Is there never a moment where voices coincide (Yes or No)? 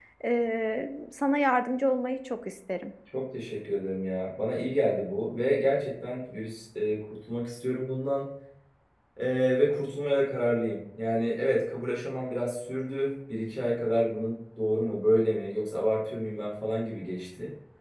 Yes